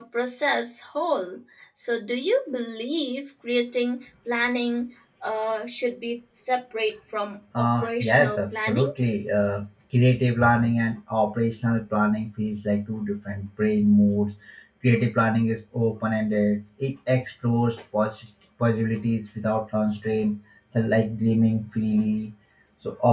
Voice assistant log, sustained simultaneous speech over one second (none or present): present